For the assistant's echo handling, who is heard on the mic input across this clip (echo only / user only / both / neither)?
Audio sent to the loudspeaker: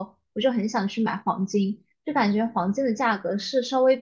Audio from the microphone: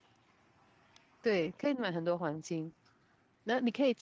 user only